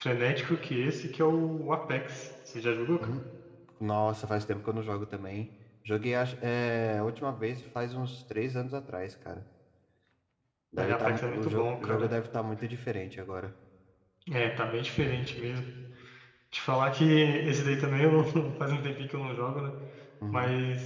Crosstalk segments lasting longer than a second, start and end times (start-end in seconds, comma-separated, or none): 10.8-12.1